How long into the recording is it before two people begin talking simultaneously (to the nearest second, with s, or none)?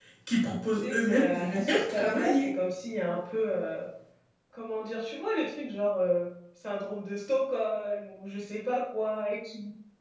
1 s